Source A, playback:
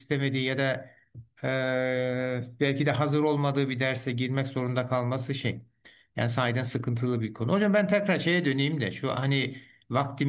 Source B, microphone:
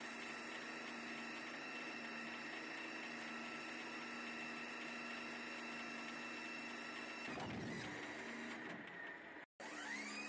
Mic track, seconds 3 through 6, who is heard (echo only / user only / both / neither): neither